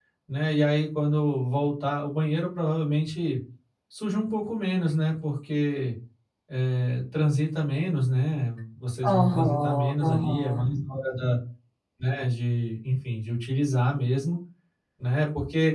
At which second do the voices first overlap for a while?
9.0 s

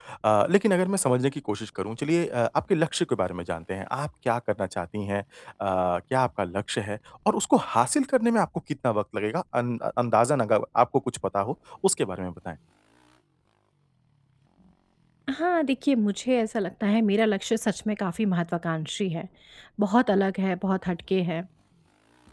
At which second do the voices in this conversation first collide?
none

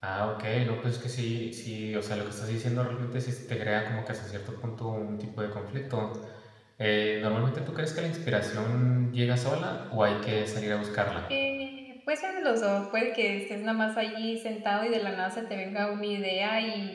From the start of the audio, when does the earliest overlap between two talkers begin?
none

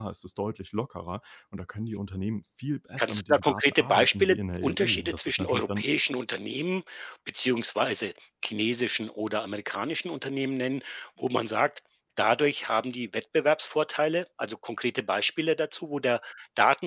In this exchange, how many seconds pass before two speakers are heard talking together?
3.0 s

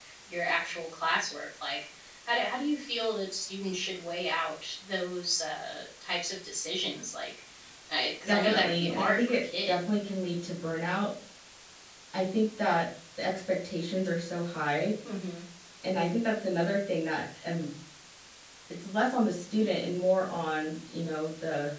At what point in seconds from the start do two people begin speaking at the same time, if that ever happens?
8.3 s

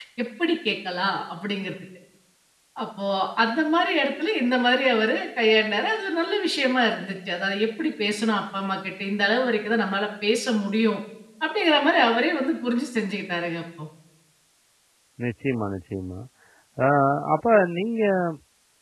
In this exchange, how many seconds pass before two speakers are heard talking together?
none

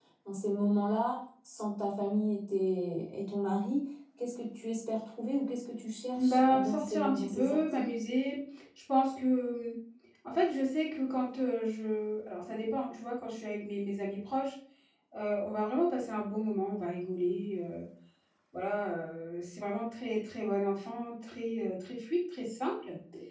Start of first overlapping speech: 6.2 s

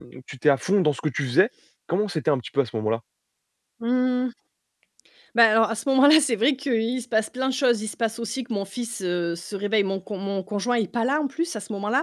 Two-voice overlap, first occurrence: none

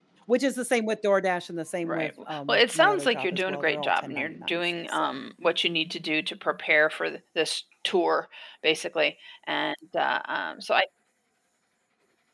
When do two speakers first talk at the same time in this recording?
1.8 s

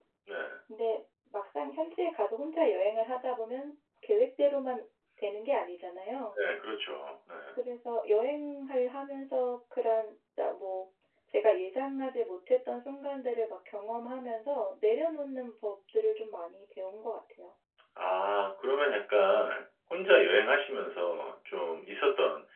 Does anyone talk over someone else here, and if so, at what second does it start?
none

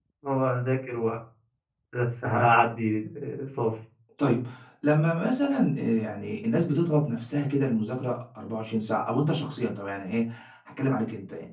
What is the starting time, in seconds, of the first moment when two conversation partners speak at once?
none

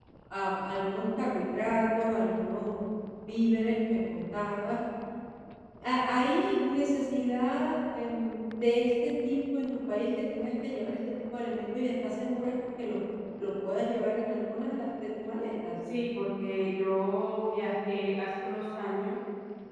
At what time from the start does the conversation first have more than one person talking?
none

